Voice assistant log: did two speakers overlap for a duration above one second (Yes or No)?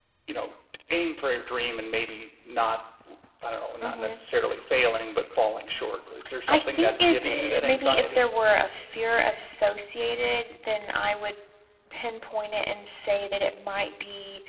Yes